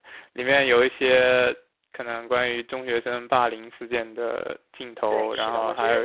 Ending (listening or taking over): taking over